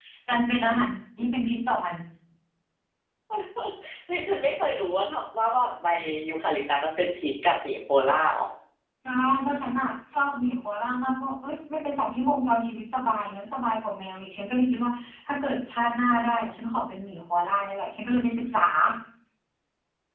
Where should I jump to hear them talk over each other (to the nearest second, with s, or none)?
none